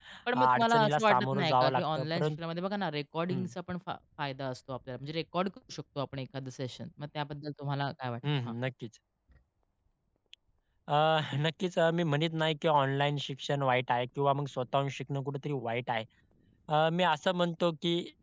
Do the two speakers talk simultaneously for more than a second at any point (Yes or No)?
Yes